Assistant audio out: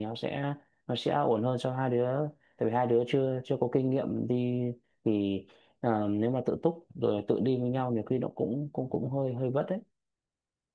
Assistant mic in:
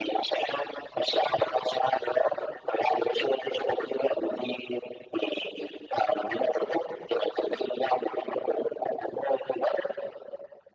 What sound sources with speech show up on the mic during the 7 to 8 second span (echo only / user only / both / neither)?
echo only